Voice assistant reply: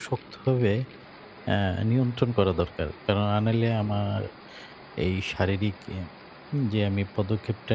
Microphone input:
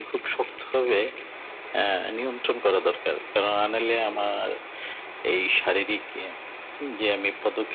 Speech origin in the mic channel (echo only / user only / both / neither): echo only